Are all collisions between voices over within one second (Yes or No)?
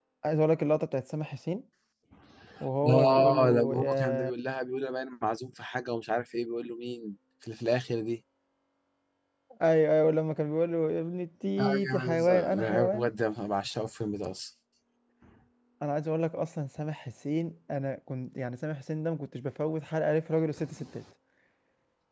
No